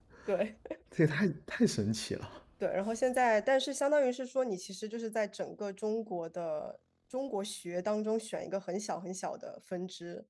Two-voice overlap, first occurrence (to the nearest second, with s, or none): none